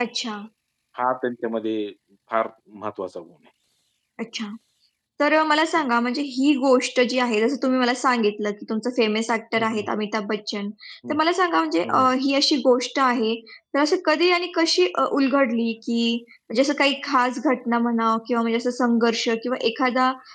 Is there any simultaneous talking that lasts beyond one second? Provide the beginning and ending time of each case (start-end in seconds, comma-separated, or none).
none